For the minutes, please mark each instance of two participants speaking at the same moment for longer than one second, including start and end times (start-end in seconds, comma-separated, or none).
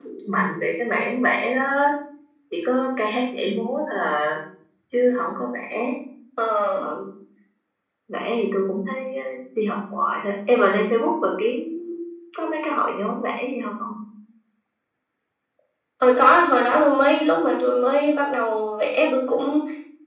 none